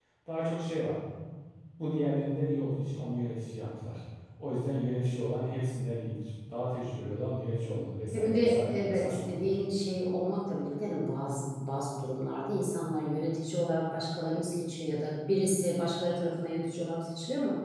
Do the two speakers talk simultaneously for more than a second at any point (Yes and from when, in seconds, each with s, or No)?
Yes, from 8.1 s